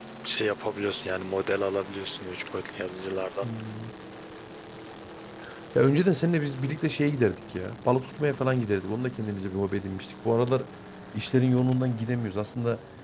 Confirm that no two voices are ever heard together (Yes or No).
Yes